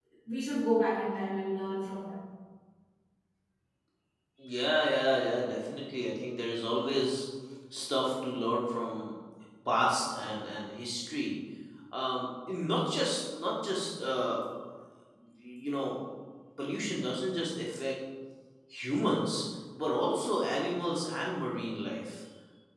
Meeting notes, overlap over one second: none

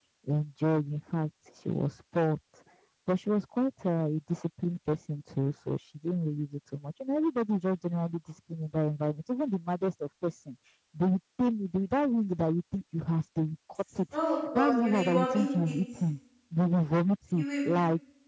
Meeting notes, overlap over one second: present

